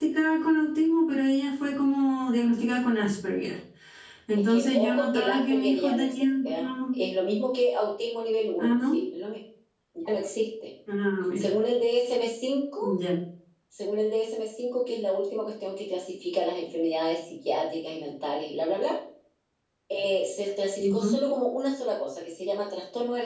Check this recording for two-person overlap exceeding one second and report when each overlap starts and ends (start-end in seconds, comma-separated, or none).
4.5-7.0